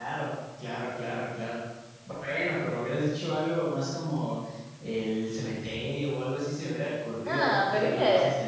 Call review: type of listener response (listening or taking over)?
taking over